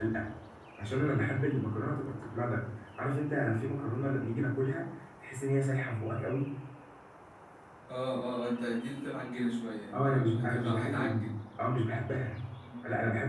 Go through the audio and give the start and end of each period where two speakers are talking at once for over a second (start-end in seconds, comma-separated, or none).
9.9-11.3